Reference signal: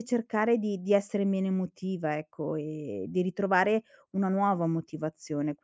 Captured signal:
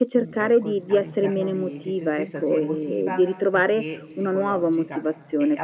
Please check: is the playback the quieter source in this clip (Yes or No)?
No